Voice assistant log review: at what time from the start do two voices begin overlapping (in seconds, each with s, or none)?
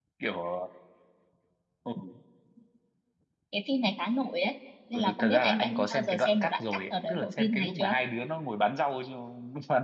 4.9 s